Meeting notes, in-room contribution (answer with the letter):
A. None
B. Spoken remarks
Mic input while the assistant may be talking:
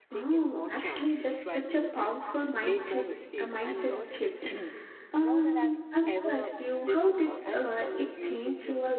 B